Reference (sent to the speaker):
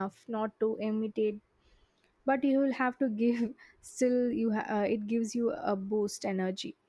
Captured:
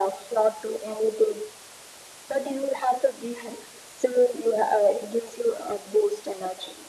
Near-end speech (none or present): none